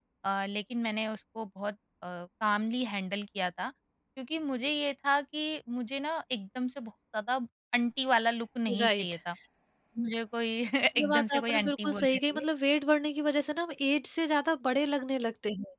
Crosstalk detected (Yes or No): Yes